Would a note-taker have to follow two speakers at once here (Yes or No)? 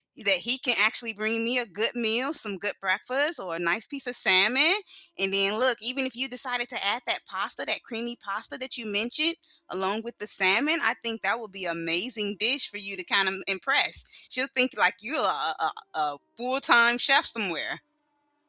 No